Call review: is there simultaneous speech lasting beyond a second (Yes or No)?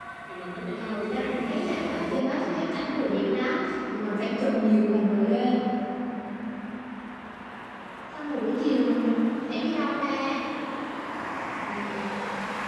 Yes